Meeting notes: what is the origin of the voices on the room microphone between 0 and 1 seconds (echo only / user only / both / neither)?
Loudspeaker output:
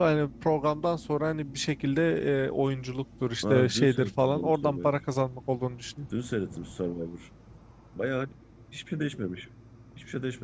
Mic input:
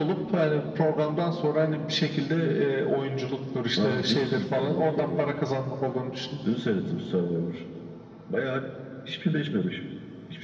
echo only